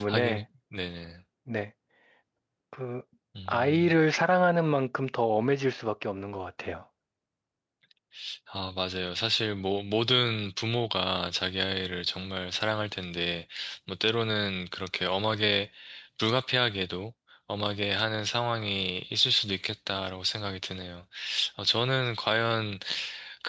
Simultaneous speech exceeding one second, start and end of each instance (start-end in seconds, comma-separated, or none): none